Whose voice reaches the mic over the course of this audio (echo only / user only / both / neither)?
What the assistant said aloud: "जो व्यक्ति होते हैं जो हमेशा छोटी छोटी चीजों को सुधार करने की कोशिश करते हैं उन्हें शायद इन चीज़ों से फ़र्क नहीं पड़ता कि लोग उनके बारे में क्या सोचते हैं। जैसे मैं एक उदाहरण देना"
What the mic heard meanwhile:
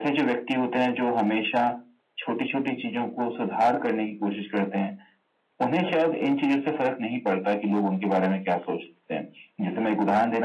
echo only